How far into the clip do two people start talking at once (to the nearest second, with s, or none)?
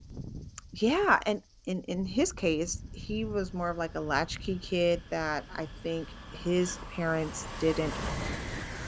none